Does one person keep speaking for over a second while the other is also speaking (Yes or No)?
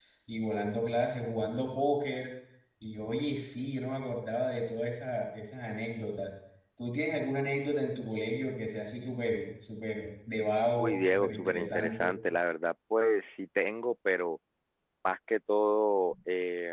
Yes